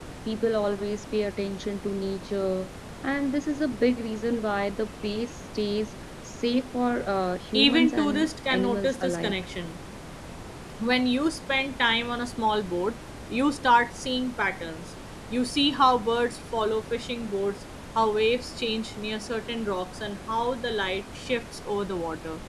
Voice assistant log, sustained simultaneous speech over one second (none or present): present